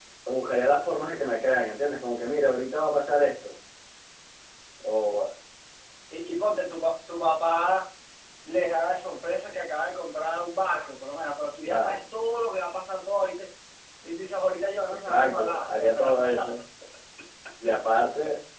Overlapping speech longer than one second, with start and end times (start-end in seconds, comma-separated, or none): 14.9-16.5